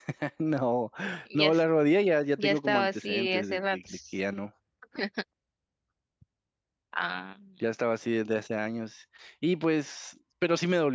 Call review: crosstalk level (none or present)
present